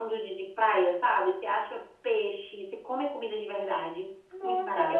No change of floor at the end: No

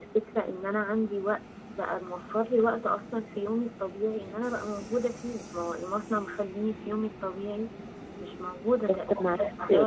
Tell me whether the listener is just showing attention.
Yes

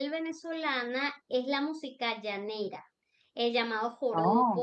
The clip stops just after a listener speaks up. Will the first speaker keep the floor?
Yes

